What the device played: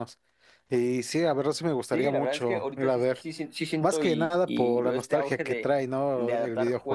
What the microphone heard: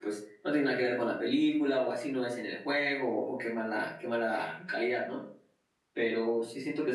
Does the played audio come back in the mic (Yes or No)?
No